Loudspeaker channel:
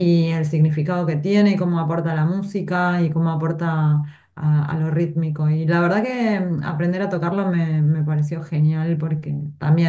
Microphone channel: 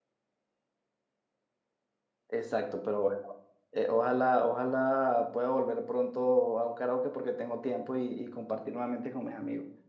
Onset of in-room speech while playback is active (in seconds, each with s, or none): 2.3 s